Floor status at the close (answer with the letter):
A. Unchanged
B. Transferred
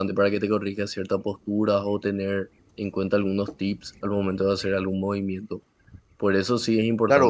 B